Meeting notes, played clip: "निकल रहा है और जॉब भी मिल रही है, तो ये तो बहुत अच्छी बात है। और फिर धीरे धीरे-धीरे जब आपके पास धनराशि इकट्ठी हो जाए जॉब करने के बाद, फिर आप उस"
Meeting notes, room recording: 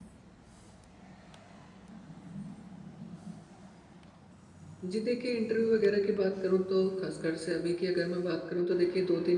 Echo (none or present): none